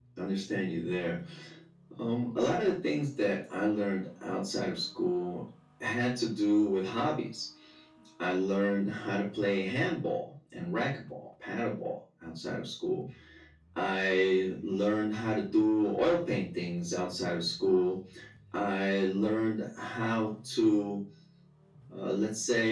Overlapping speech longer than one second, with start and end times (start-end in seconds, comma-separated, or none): none